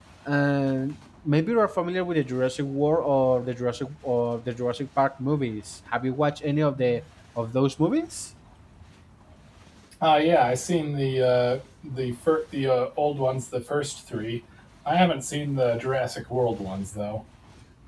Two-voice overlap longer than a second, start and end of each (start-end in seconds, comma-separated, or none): none